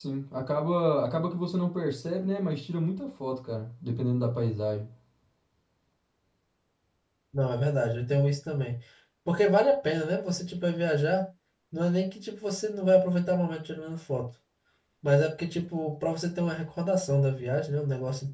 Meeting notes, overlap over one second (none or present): none